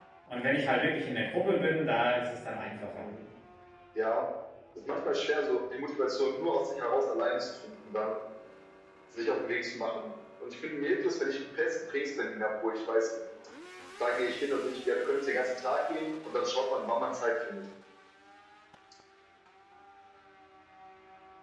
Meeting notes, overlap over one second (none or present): none